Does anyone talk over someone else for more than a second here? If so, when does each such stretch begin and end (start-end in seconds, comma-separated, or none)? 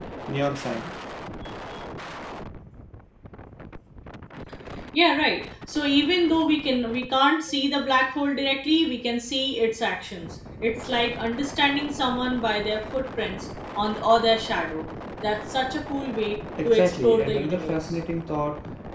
16.6-17.9